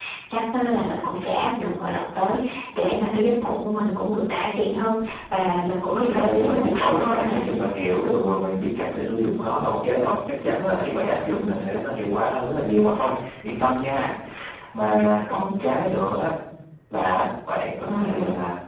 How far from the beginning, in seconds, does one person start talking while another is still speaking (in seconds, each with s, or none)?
5.8 s